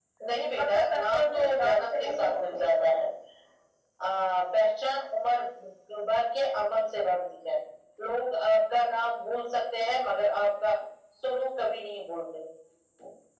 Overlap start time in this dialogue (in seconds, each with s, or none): 0.6 s